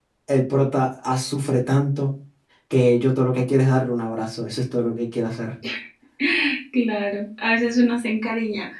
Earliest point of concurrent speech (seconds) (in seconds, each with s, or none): none